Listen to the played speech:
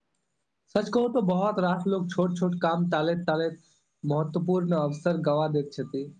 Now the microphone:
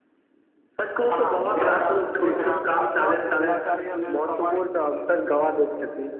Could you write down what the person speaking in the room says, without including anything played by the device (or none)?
हँ व्यायाम विश्राम आ स्वस्थ दिनाचार्या लेल समय